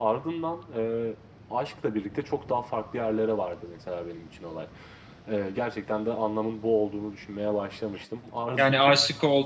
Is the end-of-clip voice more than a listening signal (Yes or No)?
Yes